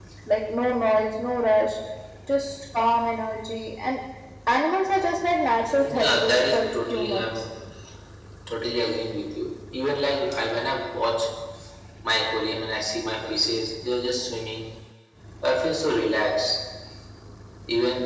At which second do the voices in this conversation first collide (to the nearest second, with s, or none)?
6 s